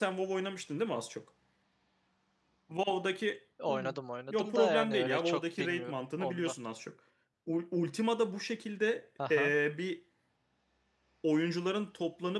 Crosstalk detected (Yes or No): Yes